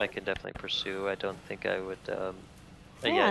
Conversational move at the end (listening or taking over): taking over